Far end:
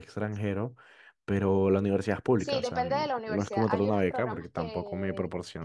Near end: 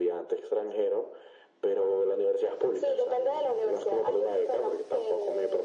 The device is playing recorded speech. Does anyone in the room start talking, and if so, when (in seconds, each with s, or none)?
none